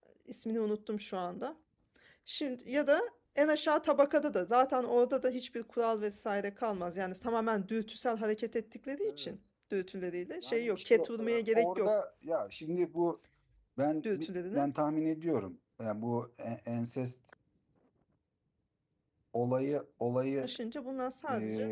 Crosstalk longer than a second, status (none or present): present